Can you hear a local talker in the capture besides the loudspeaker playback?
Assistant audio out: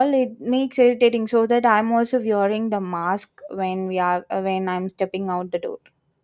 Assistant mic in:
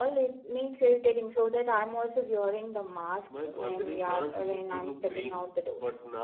Yes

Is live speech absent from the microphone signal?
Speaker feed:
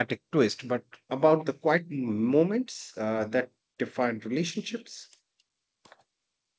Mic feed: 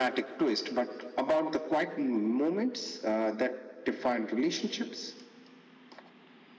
Yes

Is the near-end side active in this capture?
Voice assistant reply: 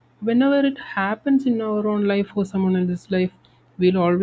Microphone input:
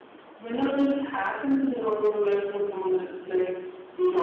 No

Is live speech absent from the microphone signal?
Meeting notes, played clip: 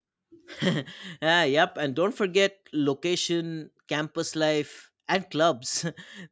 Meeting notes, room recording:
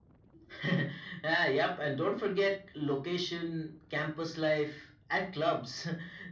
Yes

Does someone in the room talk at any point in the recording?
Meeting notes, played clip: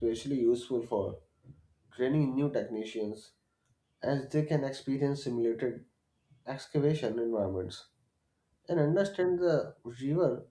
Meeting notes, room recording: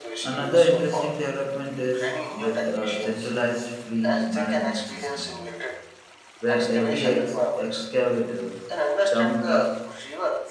Yes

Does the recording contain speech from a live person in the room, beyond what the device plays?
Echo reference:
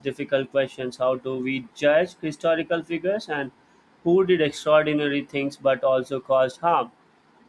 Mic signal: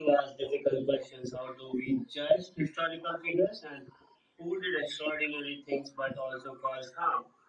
No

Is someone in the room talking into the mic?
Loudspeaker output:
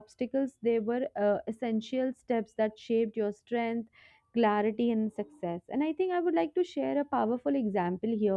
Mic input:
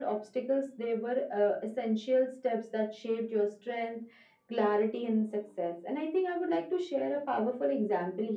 No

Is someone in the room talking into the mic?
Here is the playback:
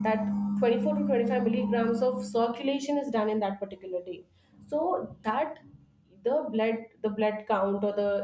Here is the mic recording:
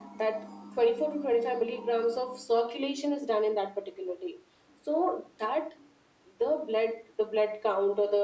No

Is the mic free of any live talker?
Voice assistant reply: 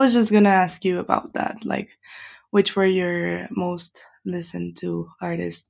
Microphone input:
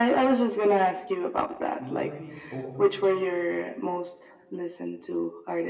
No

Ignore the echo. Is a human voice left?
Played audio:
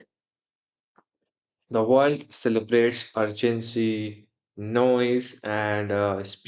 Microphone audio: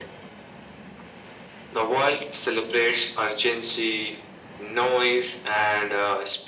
No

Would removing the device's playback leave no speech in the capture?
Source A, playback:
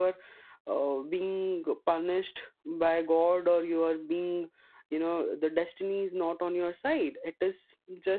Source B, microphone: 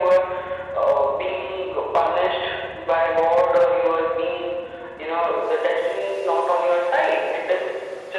Yes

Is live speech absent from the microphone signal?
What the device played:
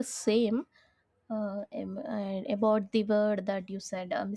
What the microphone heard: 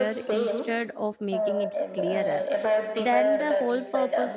No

